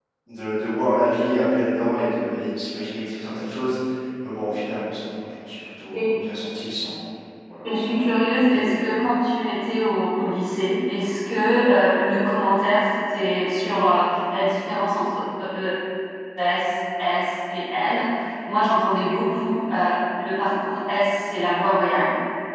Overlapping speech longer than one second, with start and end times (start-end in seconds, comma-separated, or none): none